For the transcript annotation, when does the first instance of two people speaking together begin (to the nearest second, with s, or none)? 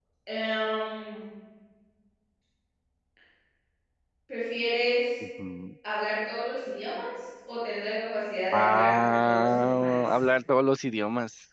9 s